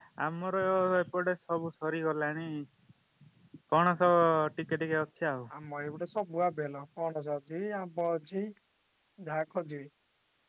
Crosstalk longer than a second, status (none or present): none